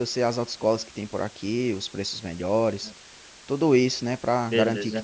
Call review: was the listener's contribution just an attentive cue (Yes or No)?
Yes